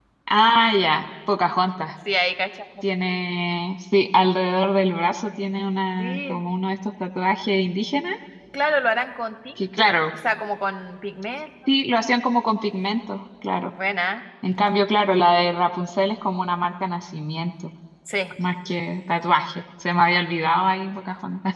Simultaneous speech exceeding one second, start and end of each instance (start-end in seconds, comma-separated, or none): none